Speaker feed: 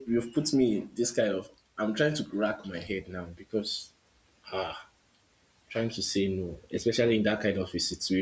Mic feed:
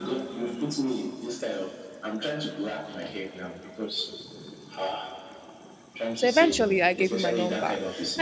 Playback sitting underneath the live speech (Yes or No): Yes